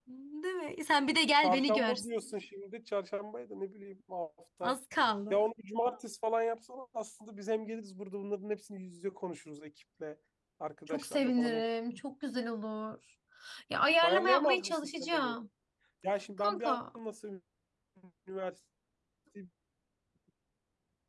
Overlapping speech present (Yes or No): Yes